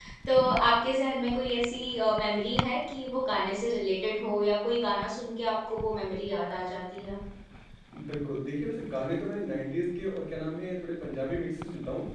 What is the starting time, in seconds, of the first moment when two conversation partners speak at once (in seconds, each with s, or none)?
none